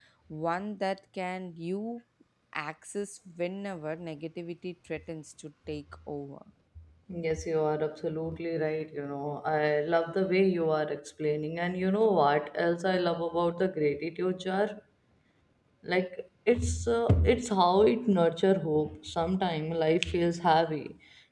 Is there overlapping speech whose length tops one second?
No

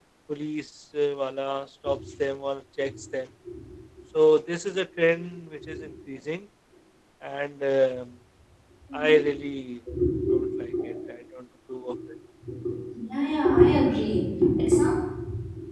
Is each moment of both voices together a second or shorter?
Yes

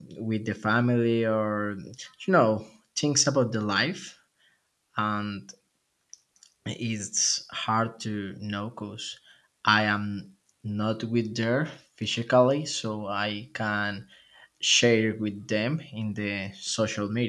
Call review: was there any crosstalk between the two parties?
No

